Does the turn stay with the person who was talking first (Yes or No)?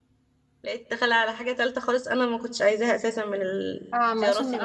No